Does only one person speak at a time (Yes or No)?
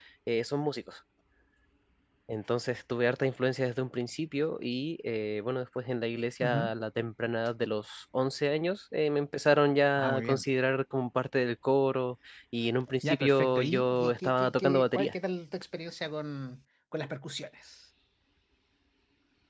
No